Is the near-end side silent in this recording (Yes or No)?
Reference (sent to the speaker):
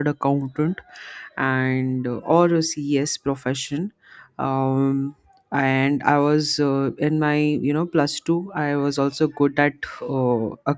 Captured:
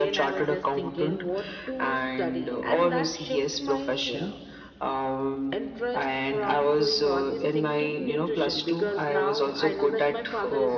No